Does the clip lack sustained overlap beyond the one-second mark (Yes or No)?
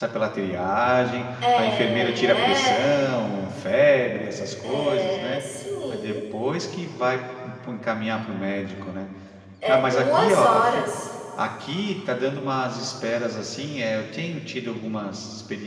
No